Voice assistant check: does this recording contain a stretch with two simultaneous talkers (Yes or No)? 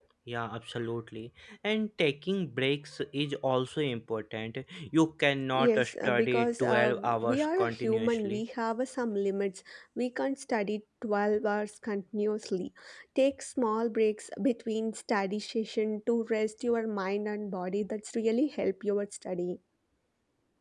Yes